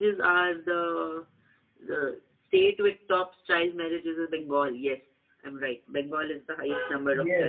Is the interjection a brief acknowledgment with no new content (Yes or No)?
No